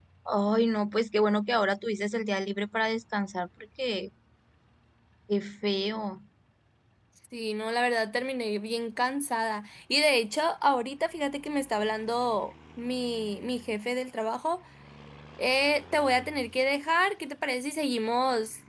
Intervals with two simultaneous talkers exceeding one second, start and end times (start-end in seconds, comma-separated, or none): none